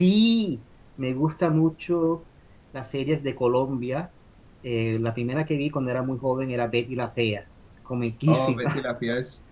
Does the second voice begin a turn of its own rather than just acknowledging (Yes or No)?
Yes